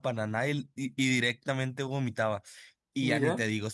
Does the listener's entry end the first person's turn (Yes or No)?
No